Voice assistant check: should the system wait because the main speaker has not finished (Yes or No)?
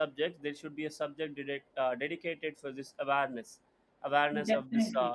Yes